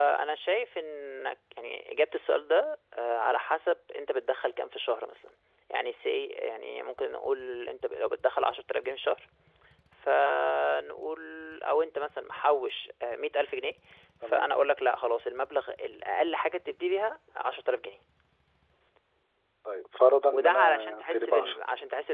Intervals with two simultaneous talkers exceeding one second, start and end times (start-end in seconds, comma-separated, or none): 20.3-21.6